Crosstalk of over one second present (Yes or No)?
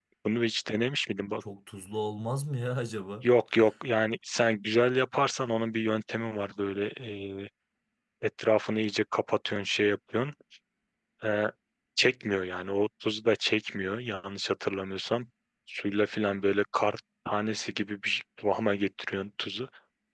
No